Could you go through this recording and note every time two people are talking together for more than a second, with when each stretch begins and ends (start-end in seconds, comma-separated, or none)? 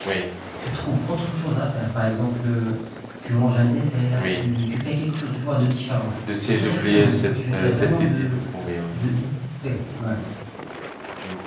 6.5-8.4